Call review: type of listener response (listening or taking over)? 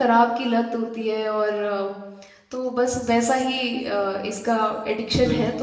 taking over